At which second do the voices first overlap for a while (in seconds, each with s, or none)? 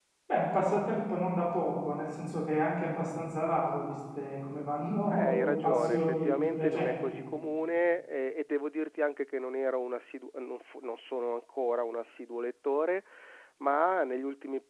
5.1 s